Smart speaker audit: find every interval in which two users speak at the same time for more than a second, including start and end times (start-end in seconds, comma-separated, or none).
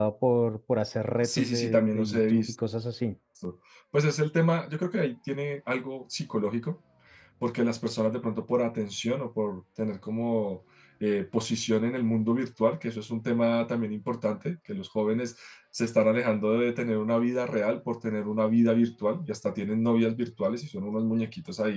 1.2-2.5